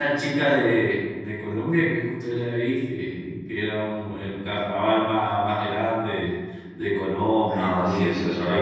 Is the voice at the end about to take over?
Yes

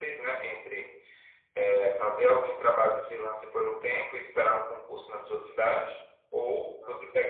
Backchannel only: Yes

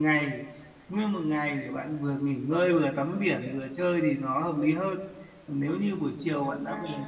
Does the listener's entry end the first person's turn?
No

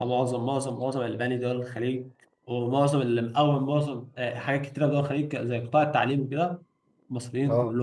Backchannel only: Yes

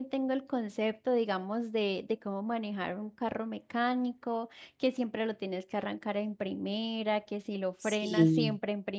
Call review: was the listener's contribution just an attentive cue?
Yes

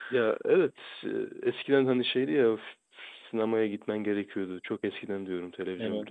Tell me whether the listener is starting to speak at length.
No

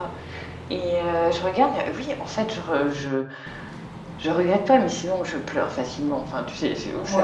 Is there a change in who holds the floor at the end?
No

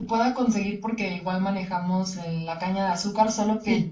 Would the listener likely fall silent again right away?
Yes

